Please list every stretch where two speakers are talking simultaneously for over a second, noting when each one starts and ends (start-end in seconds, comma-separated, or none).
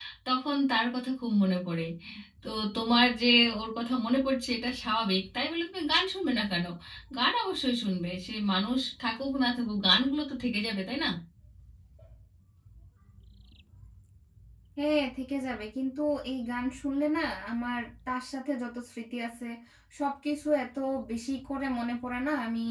none